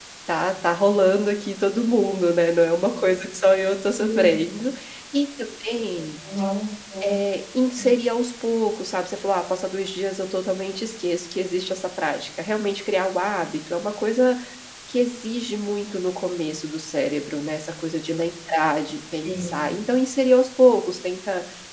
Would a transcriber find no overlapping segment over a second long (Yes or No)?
Yes